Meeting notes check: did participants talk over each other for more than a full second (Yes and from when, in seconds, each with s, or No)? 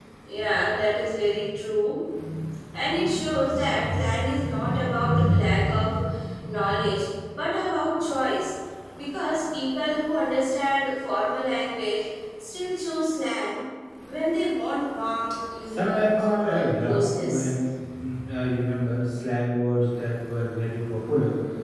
Yes, from 15.7 s